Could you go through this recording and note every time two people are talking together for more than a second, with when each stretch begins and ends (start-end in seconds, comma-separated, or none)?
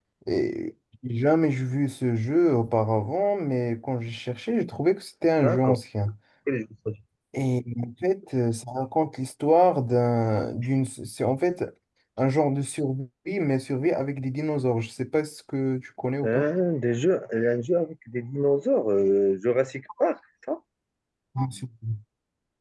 none